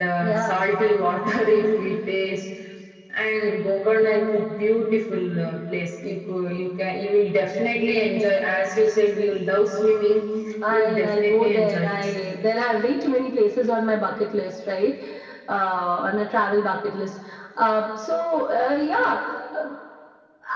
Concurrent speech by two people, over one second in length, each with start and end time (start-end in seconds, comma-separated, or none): 10.7-12.1